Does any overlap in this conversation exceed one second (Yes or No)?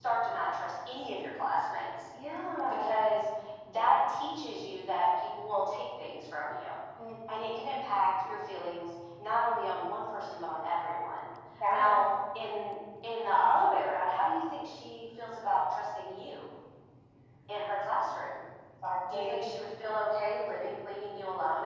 No